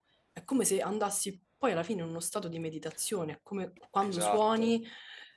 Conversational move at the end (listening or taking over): listening